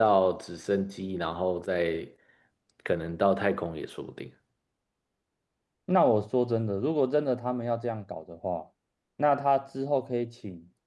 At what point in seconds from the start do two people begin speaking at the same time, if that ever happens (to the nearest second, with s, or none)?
none